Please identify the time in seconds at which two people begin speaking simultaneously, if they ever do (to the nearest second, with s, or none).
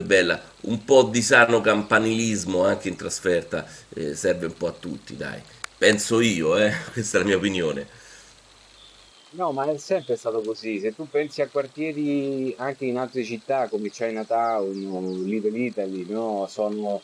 none